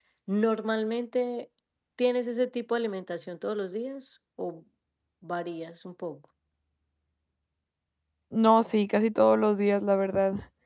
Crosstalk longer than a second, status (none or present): none